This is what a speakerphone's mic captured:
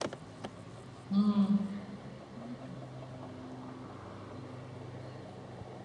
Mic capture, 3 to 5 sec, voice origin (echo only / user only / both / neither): neither